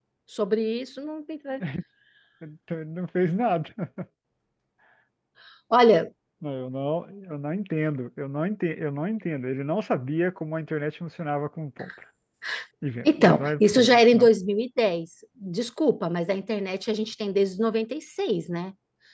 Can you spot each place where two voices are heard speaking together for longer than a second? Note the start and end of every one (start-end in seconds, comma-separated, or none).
13.0-14.3